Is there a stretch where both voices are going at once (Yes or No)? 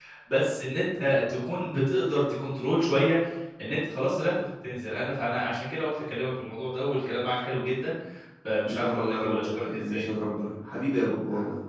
Yes